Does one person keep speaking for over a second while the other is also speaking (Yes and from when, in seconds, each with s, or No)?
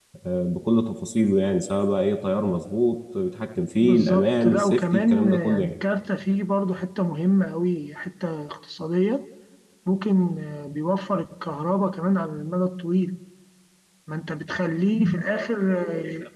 Yes, from 3.8 s